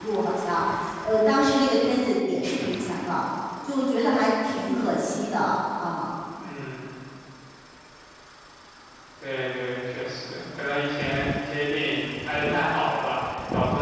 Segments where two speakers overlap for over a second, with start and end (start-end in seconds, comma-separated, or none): none